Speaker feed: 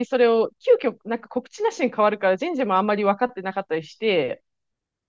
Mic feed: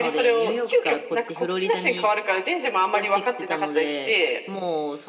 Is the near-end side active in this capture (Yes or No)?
Yes